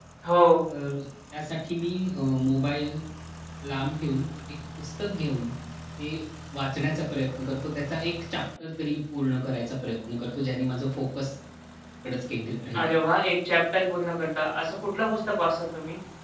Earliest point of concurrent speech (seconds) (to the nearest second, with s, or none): none